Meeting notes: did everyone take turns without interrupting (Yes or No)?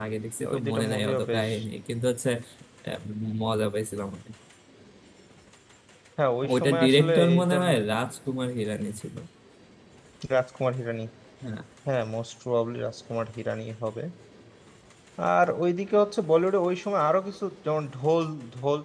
No